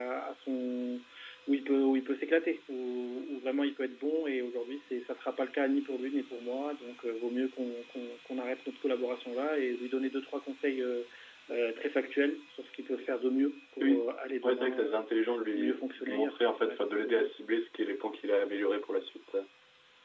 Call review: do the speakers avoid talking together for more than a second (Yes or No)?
No